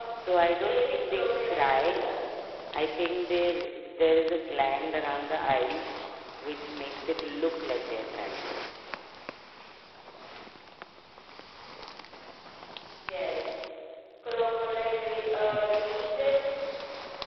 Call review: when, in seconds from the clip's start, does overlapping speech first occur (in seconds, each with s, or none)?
0.6 s